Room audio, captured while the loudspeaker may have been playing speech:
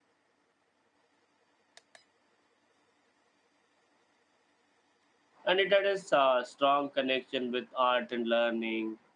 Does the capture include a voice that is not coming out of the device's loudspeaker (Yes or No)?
Yes